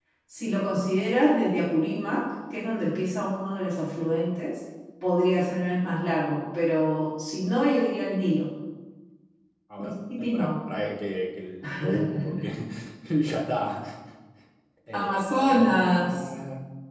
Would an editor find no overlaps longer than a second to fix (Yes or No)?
No